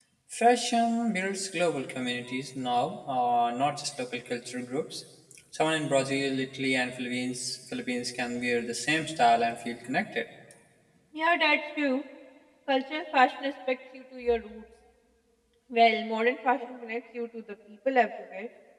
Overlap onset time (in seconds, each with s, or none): none